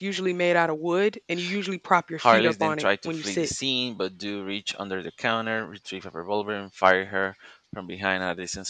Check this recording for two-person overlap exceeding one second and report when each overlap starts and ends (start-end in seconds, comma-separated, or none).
2.2-3.5